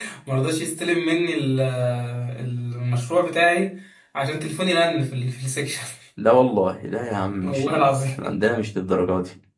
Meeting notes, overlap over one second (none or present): none